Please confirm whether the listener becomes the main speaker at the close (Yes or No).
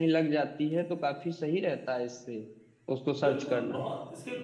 Yes